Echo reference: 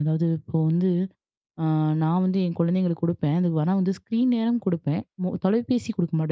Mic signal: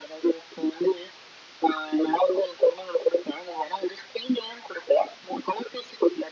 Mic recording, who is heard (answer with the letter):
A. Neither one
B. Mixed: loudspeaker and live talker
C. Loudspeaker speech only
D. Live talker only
C